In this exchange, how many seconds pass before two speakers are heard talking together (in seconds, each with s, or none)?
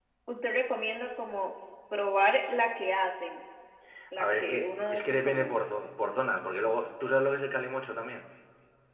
4.2 s